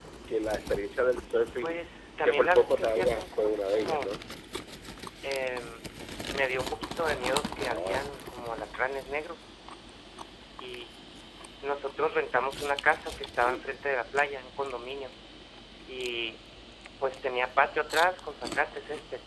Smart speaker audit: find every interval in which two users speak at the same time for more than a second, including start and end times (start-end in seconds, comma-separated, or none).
2.2-4.1